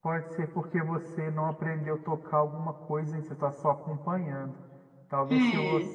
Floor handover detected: No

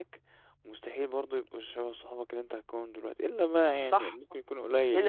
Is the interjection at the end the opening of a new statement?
Yes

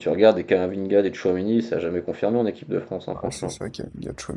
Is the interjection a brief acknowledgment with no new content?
No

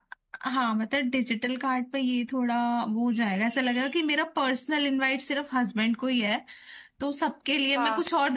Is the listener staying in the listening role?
Yes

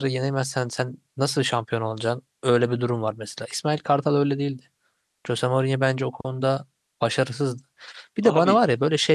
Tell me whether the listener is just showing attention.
Yes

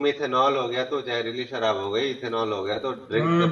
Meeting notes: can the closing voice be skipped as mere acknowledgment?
No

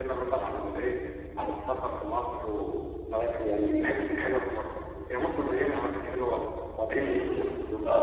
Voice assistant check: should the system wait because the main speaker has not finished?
No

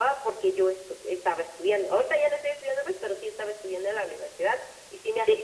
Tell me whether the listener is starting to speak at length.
No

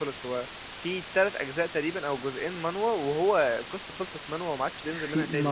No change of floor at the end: No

